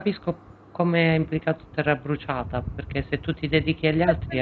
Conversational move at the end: taking over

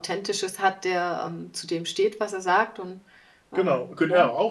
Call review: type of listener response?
taking over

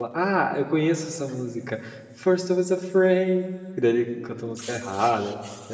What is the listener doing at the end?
taking over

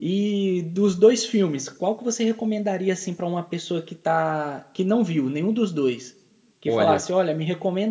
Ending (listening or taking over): listening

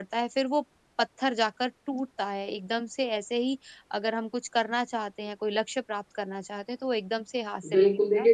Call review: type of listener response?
taking over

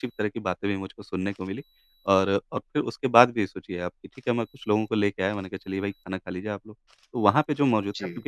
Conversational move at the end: listening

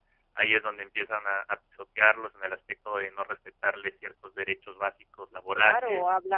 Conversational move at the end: taking over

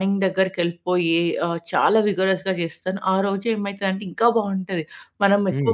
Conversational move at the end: listening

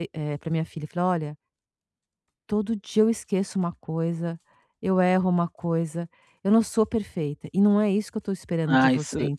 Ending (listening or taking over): taking over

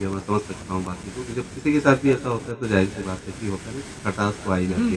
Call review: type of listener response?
taking over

